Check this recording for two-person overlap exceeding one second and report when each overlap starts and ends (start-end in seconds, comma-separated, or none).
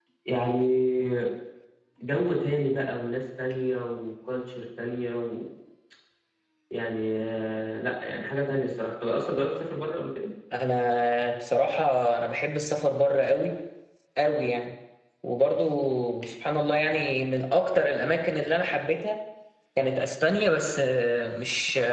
none